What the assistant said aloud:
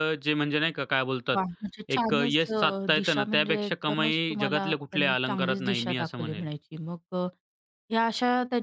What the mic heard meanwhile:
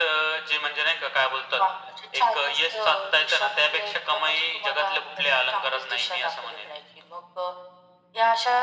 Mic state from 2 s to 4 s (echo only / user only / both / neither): echo only